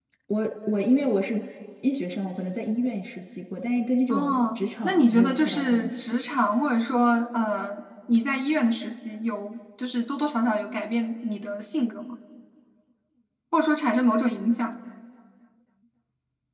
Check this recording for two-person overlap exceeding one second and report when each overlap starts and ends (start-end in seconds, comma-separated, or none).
4.1-5.9